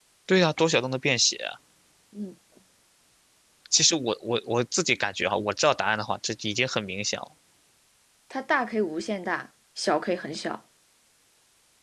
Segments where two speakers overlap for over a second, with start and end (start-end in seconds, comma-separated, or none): none